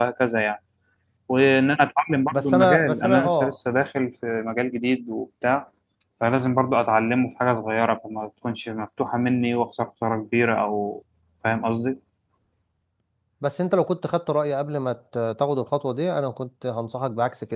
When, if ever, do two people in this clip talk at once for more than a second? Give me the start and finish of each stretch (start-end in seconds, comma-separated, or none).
2.3-3.6